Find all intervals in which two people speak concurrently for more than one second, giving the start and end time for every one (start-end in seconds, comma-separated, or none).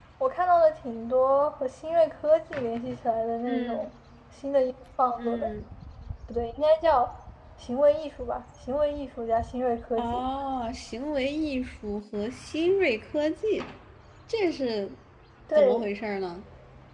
none